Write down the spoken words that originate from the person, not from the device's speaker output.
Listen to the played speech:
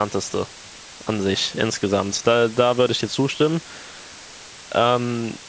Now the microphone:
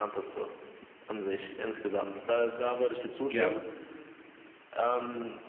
Ja.

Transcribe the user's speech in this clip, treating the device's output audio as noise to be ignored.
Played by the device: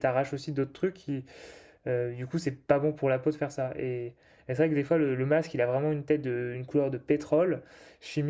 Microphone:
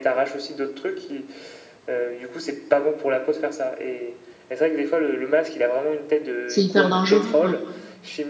c'est hyper dangereux, quoi.

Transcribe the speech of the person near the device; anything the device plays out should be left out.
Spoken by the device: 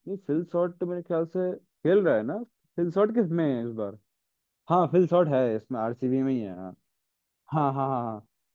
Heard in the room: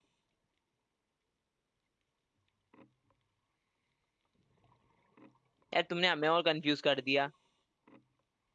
यार तुमने हमें और कंफ्यूज कर दिया

